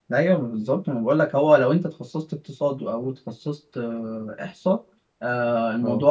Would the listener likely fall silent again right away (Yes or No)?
Yes